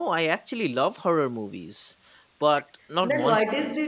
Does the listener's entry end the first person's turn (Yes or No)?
Yes